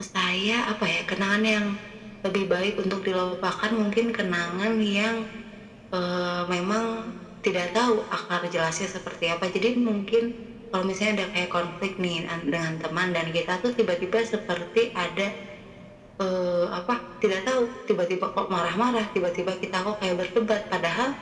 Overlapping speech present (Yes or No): No